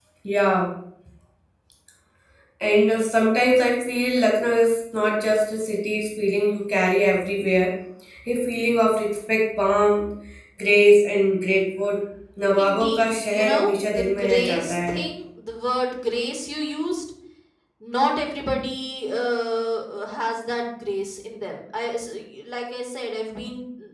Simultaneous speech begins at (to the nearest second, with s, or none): 13 s